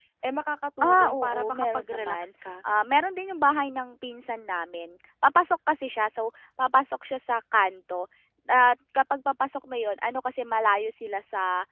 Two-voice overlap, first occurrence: 0.8 s

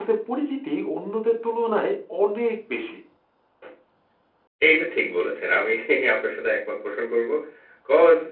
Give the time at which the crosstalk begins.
none

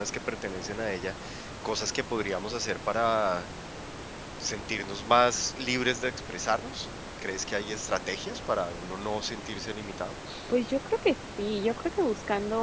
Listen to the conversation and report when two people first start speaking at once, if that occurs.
none

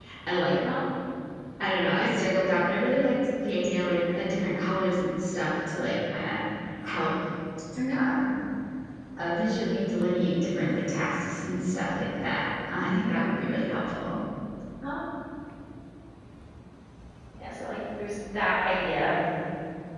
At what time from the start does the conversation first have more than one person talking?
none

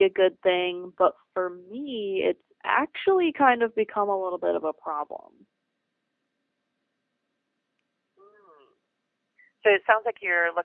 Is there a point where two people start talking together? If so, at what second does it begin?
none

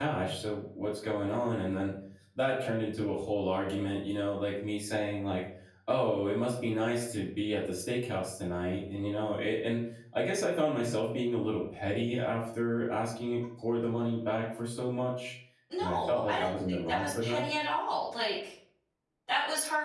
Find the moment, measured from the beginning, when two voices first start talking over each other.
15.8 s

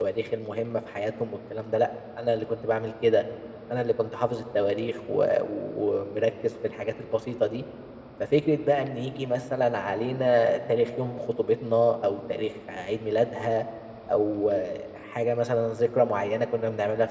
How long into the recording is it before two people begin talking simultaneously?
none

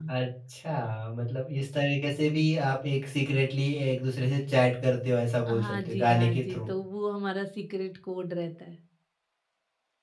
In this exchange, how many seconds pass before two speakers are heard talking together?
5.5 s

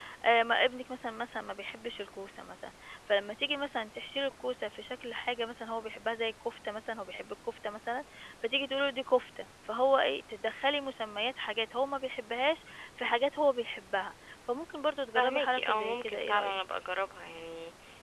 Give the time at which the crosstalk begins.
15.2 s

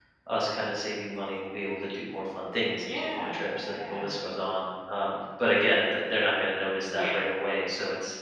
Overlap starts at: 2.8 s

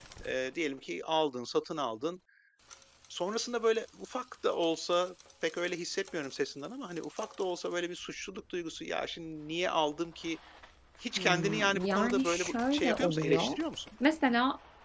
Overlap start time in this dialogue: 11.2 s

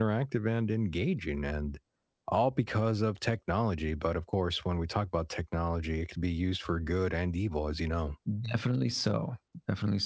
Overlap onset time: none

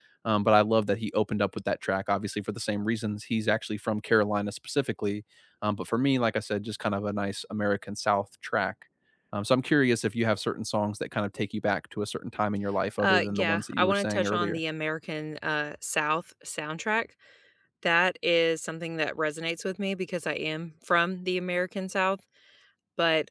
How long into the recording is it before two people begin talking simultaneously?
13.0 s

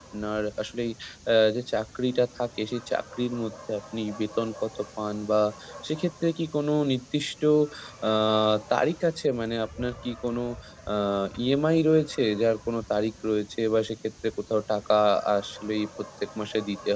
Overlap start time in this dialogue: none

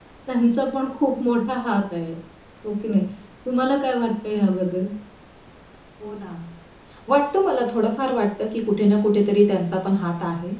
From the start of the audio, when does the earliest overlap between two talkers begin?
none

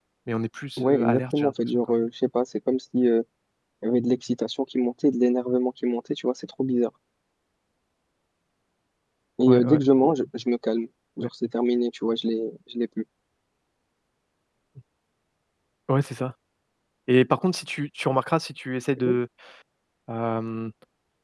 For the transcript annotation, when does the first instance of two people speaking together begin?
0.8 s

